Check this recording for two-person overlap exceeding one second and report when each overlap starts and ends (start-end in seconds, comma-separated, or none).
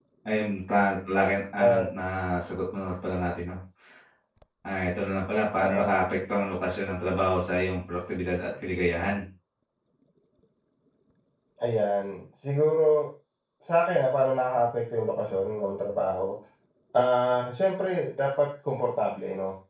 none